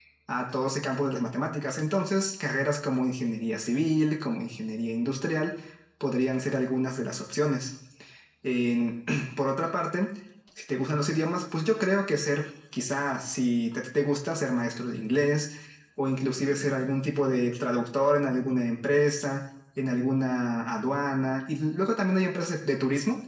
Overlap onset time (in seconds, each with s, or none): none